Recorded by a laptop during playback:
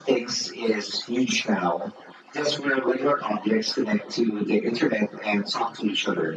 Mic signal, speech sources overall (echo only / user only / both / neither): echo only